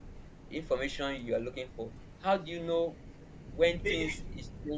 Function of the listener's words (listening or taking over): listening